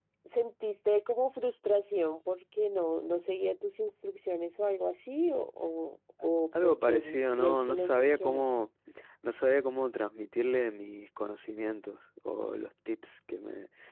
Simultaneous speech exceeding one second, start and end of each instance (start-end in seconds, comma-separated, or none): 6.5-8.5